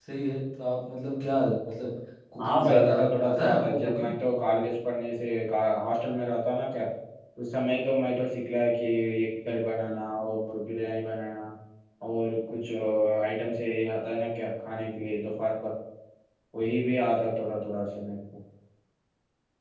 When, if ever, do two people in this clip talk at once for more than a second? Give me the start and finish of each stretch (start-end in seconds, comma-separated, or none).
2.4-4.1